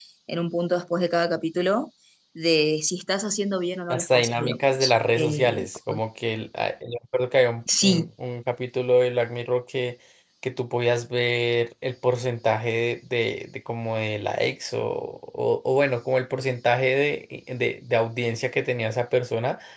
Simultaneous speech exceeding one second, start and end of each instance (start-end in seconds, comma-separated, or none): 3.9-6.0